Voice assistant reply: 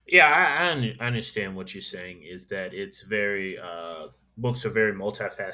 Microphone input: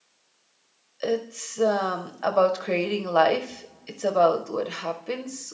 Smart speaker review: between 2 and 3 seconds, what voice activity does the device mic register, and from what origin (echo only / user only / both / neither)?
user only